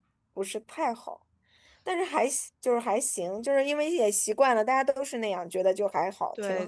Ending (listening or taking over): taking over